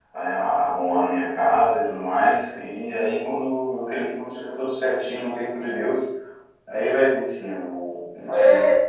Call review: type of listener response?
taking over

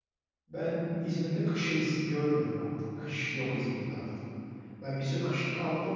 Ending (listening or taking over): listening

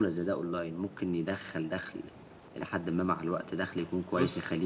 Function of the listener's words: listening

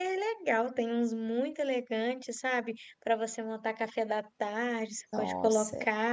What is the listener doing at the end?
listening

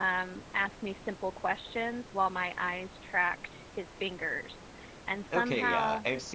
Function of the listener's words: taking over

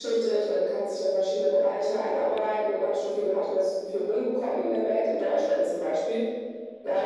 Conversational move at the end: listening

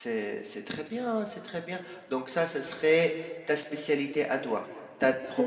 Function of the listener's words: listening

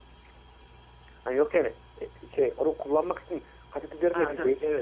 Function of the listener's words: taking over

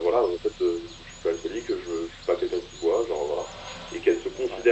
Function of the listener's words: listening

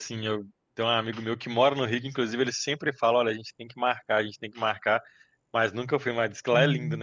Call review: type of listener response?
taking over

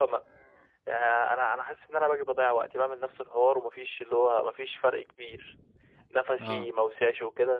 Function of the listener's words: listening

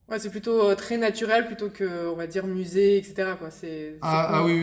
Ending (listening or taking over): taking over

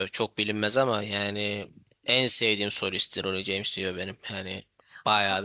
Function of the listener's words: taking over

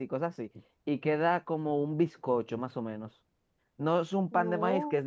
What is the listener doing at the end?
listening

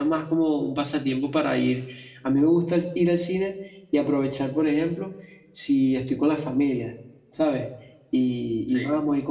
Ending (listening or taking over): listening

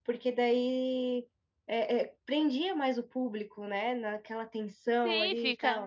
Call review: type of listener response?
taking over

